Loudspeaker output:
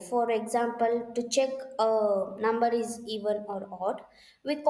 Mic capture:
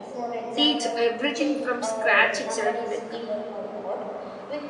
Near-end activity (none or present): present